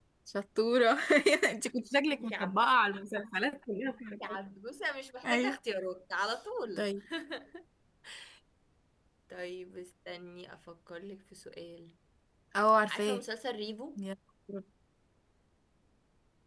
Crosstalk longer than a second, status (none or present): none